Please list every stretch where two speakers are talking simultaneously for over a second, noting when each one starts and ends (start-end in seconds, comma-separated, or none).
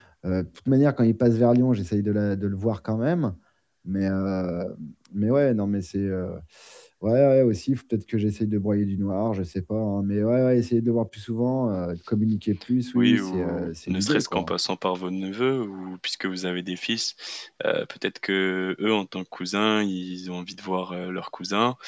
12.9-14.5